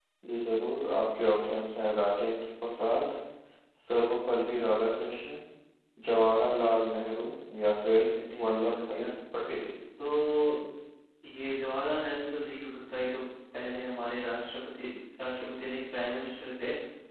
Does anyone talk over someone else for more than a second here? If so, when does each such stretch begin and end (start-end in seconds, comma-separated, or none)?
7.9-9.1